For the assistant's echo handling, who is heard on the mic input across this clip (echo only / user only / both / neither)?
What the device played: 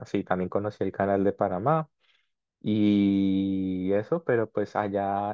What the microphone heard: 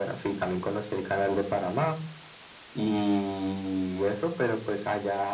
echo only